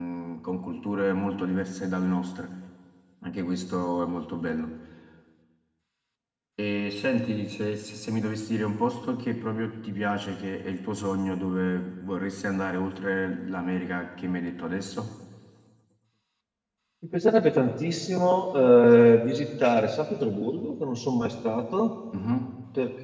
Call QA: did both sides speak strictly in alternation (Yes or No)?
Yes